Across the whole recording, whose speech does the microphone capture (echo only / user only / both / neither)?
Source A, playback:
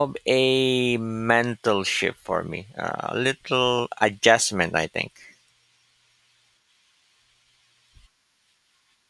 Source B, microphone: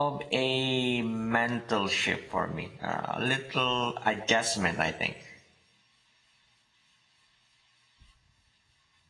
echo only